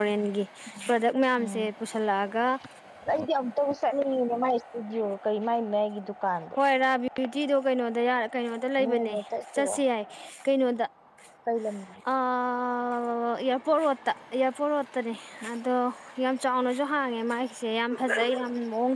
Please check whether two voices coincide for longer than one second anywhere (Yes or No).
No